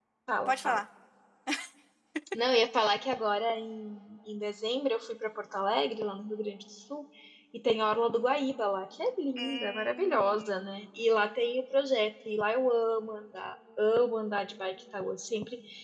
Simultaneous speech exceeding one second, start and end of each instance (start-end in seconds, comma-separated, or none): 9.4-10.6